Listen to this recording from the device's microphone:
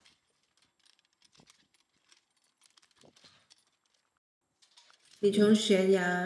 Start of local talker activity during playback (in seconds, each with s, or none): 5.2 s